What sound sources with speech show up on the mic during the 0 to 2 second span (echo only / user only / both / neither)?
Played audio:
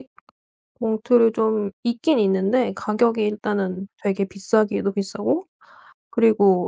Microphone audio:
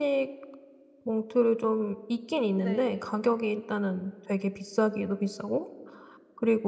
echo only